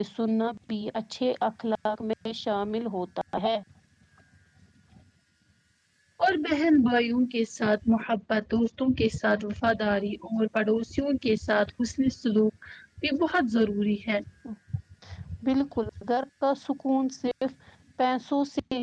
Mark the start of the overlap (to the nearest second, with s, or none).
none